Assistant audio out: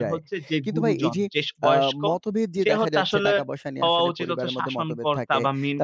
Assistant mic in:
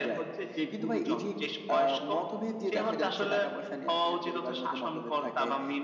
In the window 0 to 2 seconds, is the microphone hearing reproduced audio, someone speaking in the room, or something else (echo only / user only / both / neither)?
echo only